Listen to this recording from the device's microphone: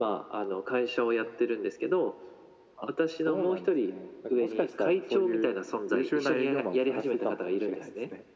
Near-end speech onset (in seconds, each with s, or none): none